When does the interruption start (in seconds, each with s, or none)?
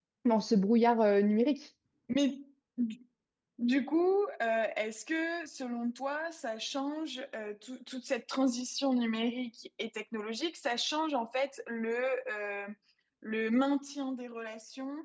none